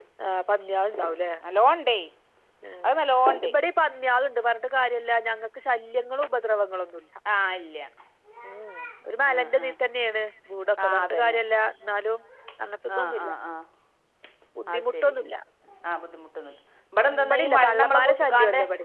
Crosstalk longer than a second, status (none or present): present